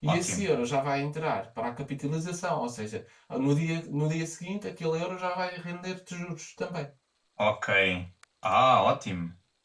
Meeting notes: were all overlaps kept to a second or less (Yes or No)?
Yes